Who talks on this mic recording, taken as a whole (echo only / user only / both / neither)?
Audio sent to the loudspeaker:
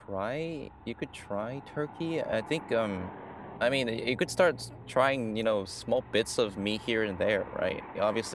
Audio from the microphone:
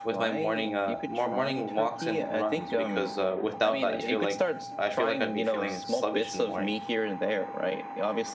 both